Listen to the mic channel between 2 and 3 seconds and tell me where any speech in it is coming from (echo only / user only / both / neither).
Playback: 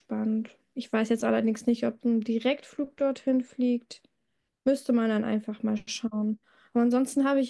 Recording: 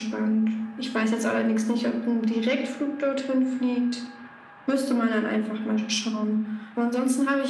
echo only